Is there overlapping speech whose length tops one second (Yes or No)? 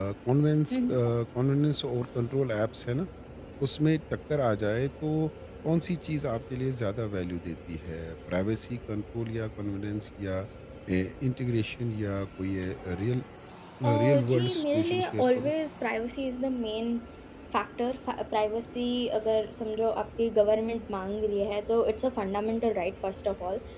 Yes